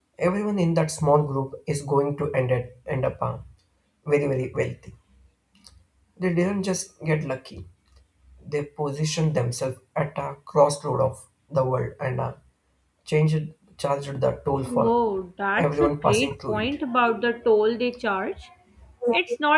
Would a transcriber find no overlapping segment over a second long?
No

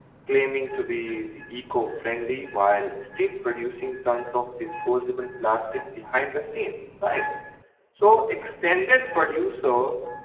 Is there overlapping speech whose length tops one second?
No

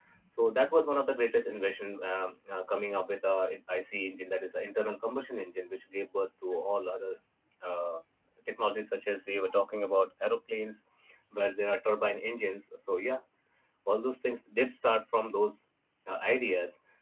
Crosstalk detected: No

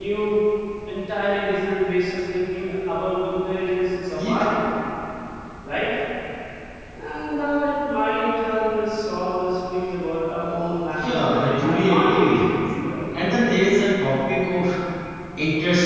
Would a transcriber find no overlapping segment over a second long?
No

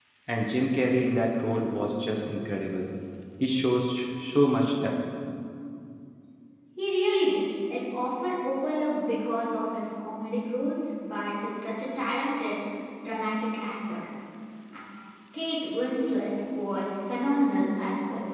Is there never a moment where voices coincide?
Yes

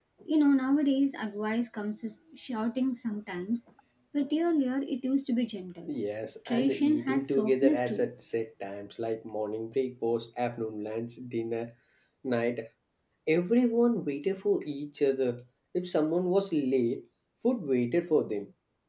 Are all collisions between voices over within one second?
No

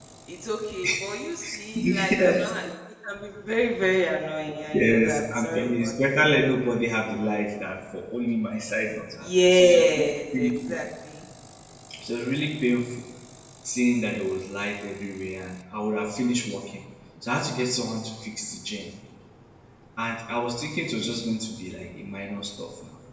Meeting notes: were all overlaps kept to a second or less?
No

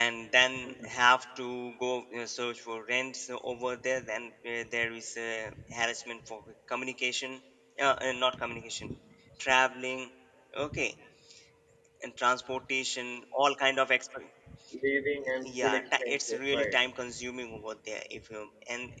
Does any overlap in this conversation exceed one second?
Yes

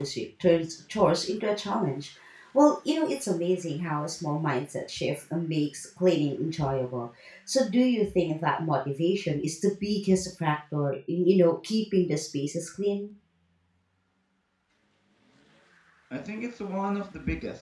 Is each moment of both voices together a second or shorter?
Yes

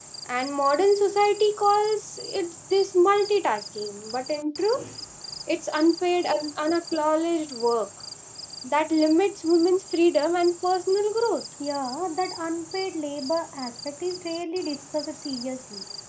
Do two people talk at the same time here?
No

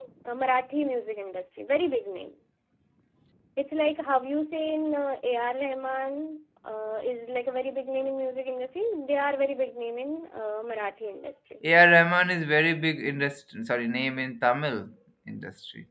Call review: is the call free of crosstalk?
Yes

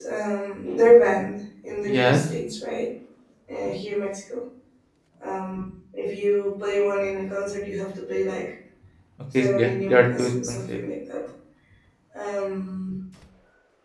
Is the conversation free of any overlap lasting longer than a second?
No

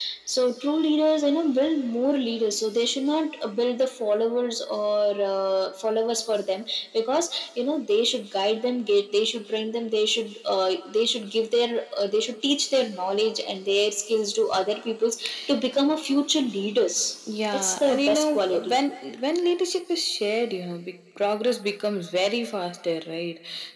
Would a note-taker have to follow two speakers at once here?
Yes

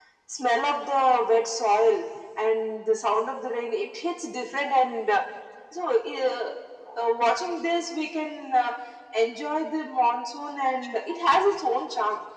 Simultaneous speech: No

